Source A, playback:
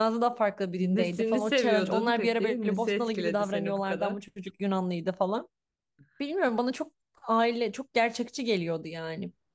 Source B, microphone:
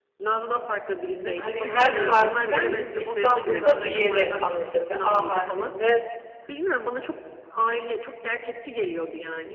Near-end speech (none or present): present